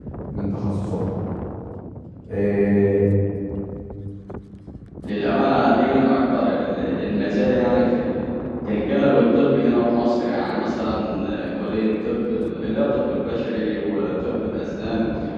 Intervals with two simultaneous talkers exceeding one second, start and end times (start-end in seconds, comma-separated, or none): none